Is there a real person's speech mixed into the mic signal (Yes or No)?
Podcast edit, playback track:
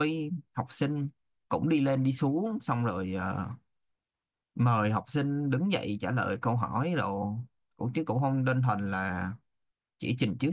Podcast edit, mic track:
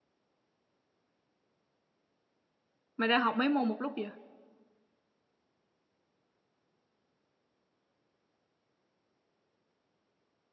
Yes